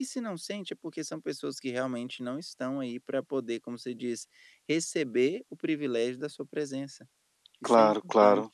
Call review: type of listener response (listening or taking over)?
taking over